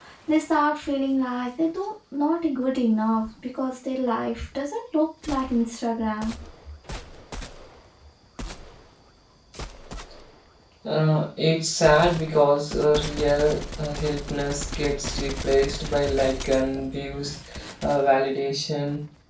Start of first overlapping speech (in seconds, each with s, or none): none